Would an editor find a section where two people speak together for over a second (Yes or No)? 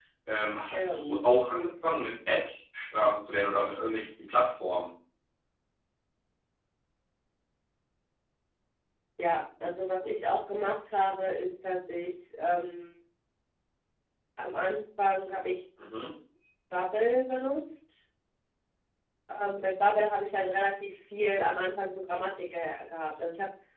No